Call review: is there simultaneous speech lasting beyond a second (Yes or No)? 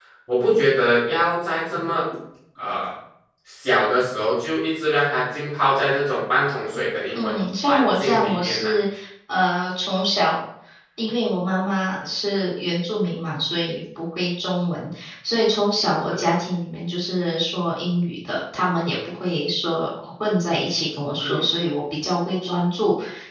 Yes